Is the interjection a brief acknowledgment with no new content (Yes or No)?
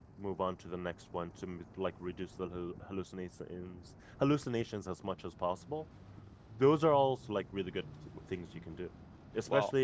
Yes